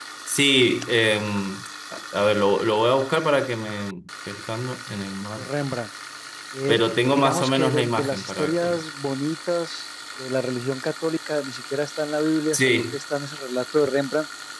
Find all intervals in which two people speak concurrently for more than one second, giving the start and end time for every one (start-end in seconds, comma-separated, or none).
6.7-8.8